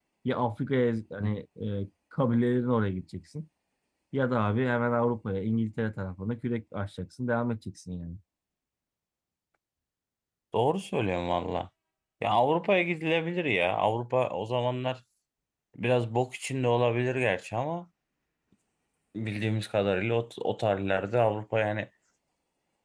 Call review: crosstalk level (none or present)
none